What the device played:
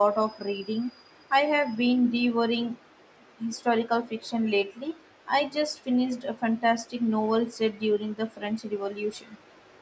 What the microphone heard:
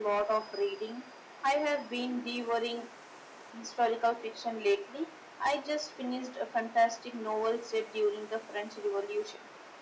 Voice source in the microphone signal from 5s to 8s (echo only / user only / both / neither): echo only